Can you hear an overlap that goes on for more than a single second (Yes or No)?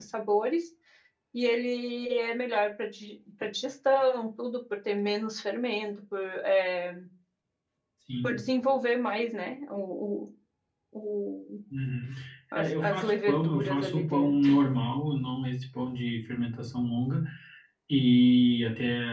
Yes